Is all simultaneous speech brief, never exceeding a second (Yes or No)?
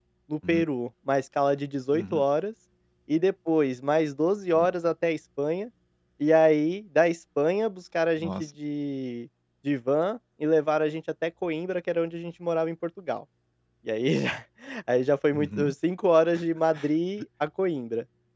Yes